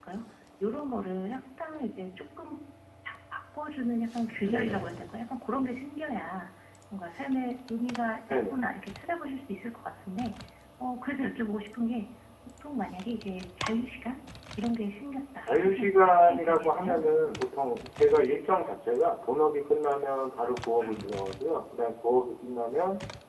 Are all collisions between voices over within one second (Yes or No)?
No